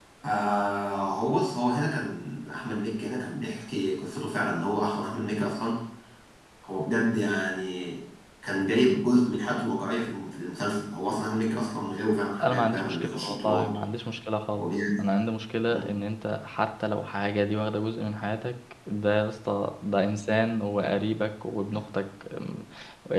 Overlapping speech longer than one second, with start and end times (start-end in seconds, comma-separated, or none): 12.4-13.7